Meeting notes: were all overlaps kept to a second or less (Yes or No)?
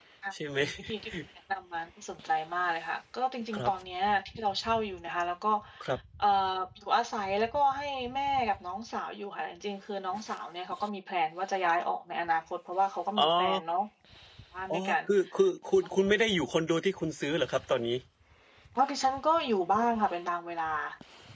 Yes